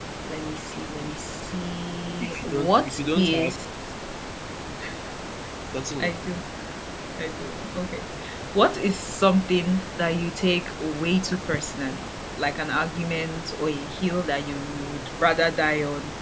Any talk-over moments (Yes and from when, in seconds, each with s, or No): Yes, from 2.2 s